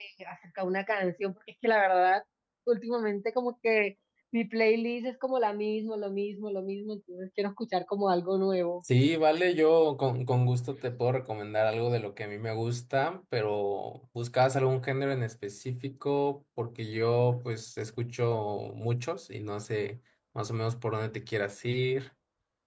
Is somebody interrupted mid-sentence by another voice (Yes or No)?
No